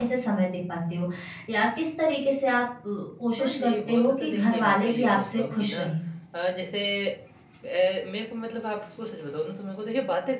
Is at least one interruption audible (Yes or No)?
Yes